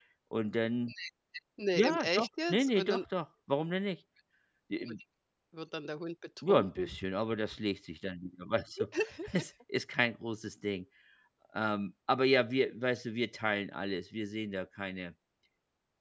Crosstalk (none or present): present